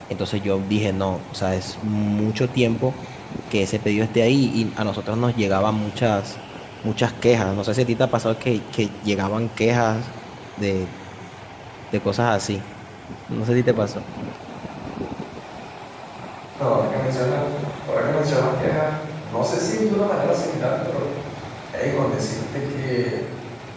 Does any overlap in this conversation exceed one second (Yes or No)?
No